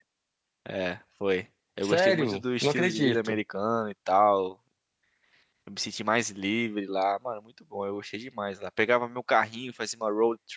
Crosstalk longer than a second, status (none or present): present